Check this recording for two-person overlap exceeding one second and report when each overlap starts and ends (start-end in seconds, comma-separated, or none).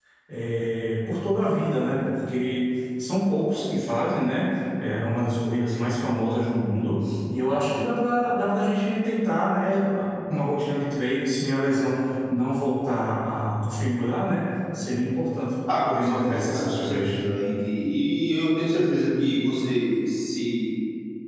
15.8-17.2